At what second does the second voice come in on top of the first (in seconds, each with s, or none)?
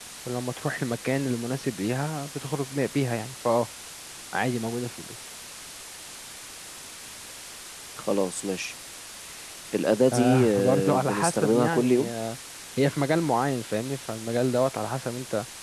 10.1 s